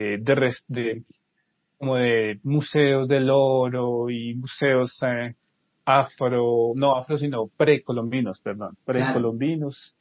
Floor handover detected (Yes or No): No